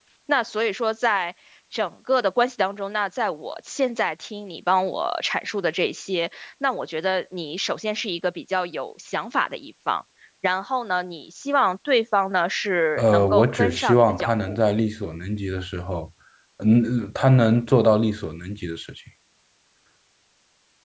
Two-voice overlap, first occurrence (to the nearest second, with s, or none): 13 s